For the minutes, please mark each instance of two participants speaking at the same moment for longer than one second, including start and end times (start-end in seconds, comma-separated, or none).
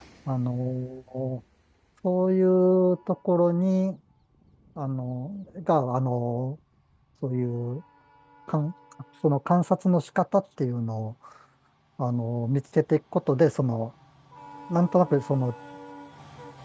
none